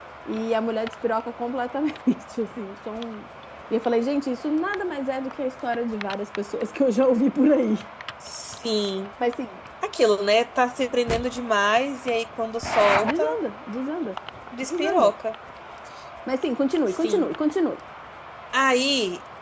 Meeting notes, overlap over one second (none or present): none